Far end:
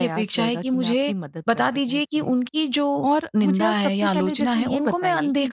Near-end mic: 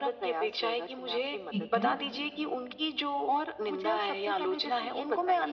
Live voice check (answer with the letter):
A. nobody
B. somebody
B